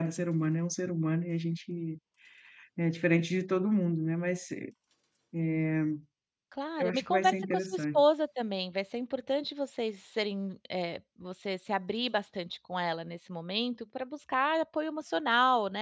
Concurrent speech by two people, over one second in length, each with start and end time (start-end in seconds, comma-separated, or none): 6.8-8.0